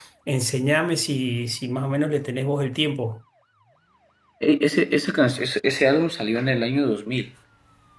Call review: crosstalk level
none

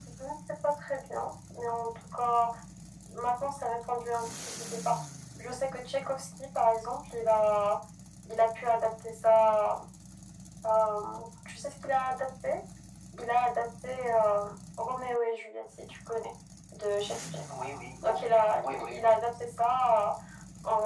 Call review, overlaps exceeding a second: present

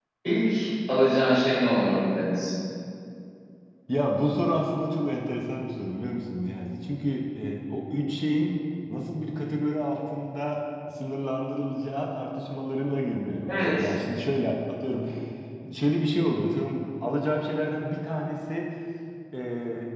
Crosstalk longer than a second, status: none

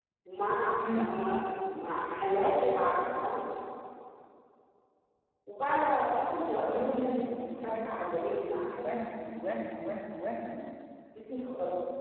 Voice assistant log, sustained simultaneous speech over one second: present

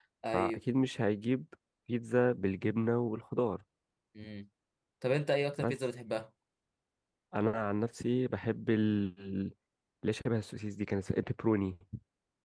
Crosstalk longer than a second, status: none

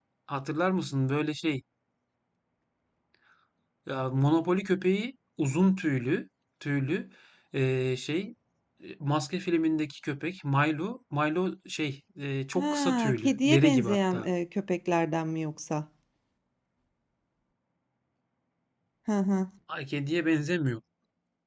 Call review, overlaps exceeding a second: present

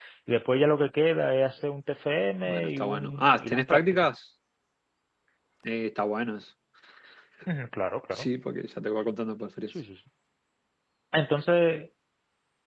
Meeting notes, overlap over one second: present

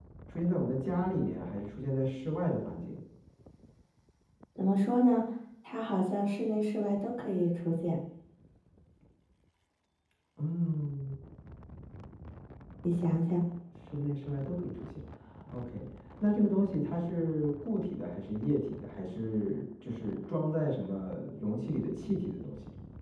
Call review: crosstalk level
none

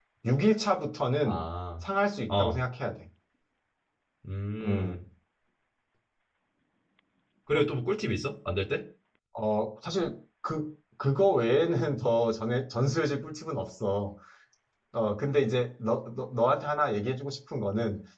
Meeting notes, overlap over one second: none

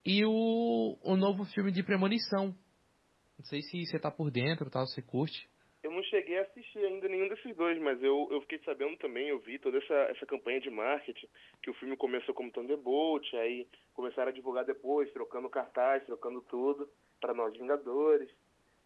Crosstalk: none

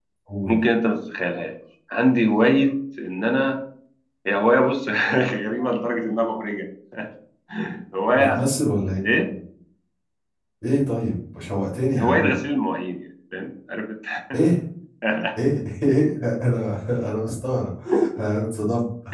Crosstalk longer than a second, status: none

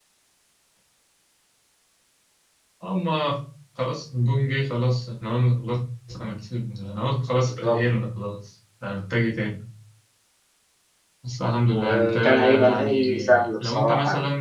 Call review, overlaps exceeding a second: present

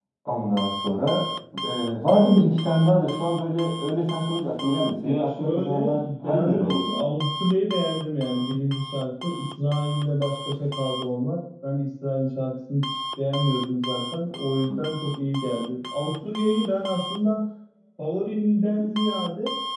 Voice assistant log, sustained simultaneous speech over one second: present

